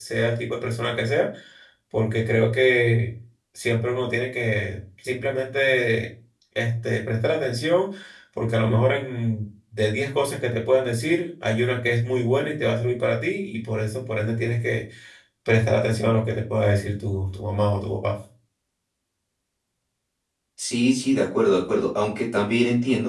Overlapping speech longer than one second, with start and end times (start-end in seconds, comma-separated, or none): none